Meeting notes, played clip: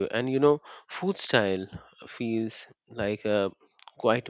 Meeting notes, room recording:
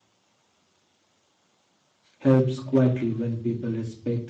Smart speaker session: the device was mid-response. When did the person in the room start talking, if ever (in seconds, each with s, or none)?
2.2 s